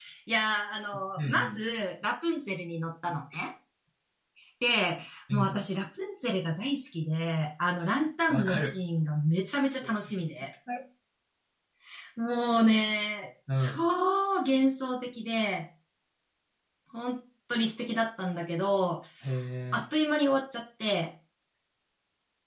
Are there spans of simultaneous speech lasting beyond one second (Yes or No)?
No